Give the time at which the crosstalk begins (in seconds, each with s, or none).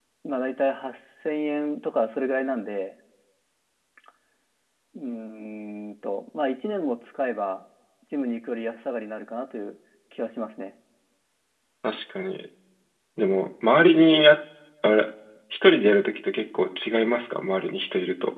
none